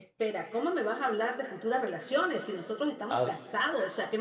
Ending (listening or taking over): listening